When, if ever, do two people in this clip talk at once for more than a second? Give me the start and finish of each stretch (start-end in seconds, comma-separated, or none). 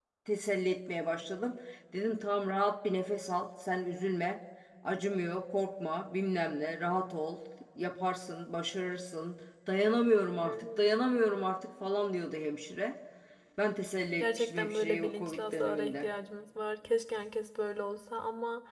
14.2-16.1